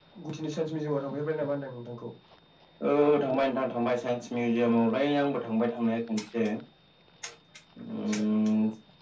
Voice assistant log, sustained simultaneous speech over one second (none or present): none